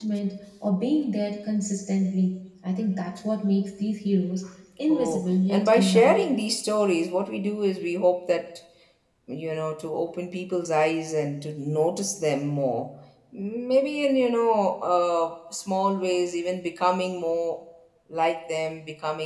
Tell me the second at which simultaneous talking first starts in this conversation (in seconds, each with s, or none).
4.9 s